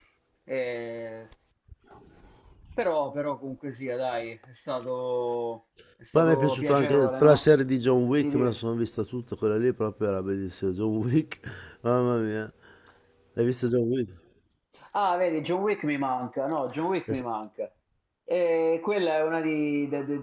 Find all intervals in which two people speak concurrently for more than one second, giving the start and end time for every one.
6.1-7.4

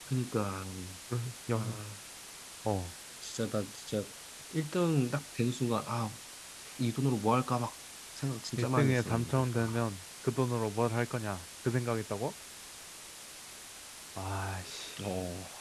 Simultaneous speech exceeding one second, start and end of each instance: 8.6-9.8

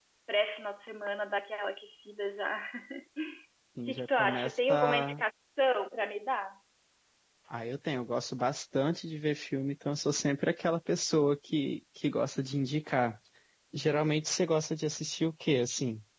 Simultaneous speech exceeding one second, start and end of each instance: 3.8-5.2

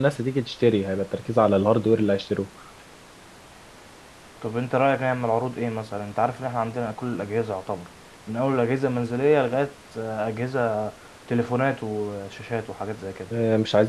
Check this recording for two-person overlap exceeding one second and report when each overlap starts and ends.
none

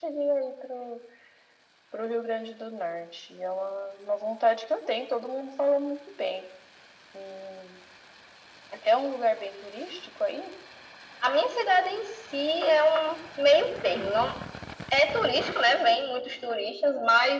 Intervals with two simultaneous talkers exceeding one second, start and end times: none

